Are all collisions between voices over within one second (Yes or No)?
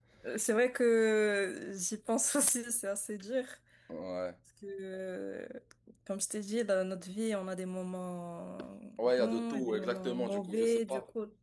No